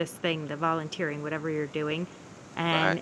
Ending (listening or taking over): listening